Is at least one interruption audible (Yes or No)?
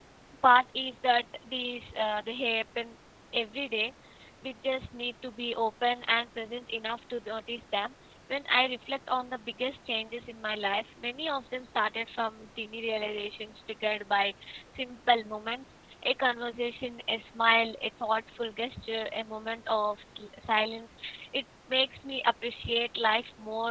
No